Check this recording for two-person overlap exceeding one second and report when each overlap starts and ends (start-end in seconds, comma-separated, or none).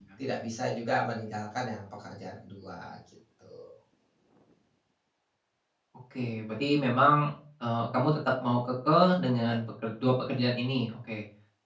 none